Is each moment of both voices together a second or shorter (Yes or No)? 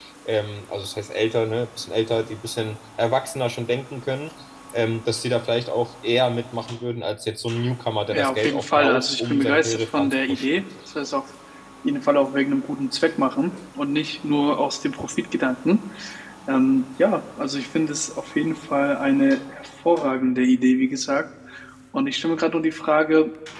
No